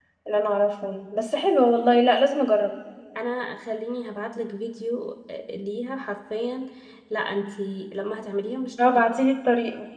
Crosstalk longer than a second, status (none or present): none